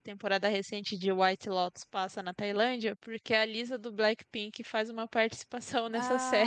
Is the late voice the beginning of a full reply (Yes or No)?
Yes